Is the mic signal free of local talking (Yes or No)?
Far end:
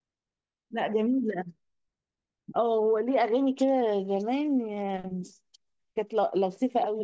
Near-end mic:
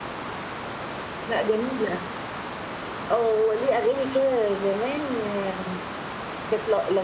Yes